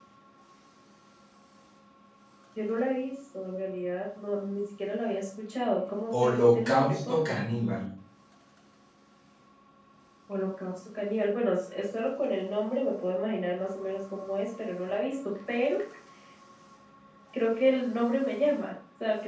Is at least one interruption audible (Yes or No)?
Yes